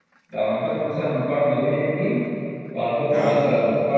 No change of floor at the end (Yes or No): Yes